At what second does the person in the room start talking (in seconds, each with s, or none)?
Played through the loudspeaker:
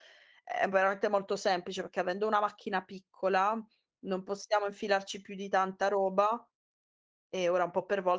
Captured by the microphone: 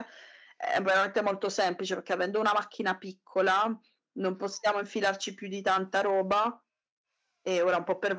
none